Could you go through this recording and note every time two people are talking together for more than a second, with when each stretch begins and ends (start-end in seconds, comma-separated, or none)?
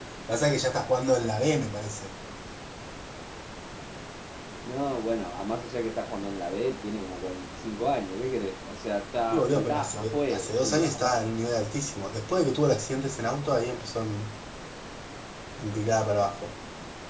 9.3-11.2